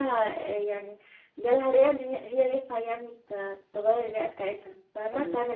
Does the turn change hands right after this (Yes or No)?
Yes